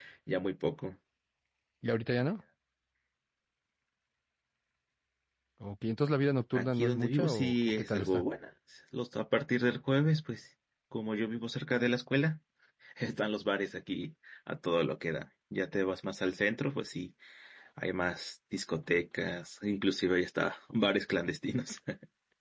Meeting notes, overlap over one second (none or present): present